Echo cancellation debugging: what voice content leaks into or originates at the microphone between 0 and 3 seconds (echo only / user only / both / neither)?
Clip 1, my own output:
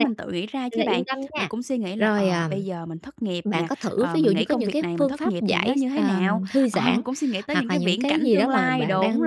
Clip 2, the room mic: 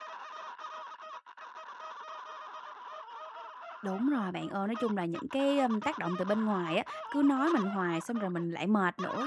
neither